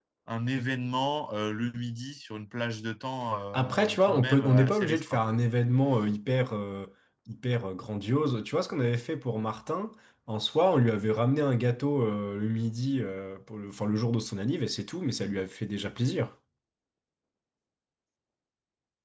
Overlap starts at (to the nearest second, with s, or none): 4 s